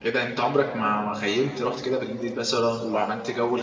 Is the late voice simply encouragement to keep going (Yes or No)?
Yes